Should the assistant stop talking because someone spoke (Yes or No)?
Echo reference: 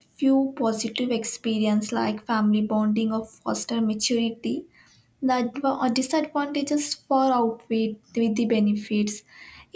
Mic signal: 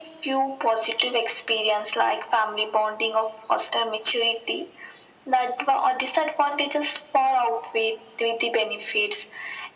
No